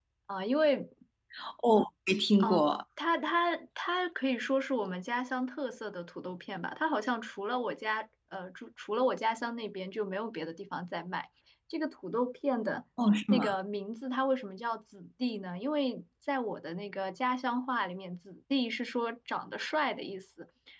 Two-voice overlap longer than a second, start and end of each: none

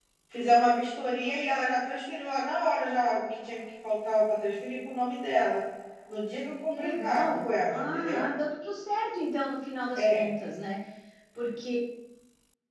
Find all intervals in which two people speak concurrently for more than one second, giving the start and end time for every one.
6.7-8.2

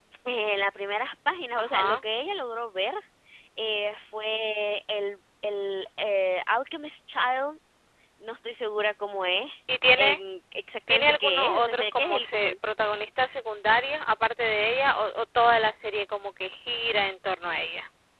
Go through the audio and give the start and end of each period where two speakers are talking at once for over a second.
10.9-12.5

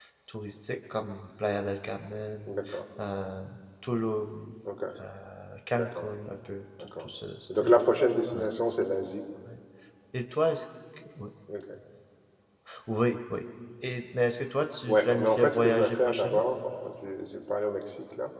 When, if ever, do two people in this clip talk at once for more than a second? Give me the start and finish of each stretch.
14.8-16.4

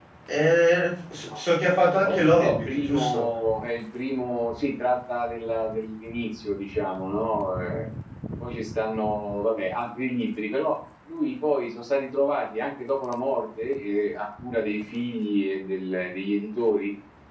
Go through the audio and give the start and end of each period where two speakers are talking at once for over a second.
2.0-3.3

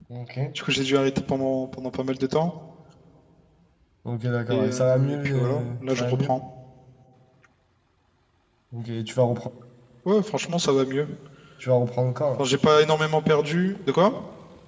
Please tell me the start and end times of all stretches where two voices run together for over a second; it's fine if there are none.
4.5-6.3

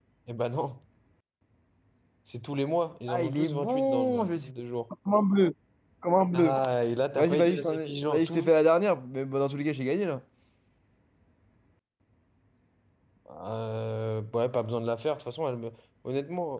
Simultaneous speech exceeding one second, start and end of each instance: 3.1-4.5, 7.2-8.5

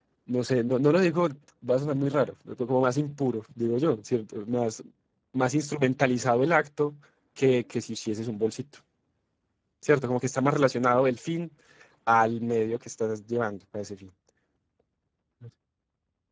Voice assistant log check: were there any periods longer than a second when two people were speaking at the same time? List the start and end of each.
none

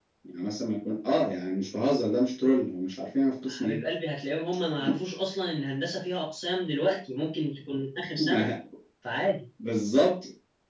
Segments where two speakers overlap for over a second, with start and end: none

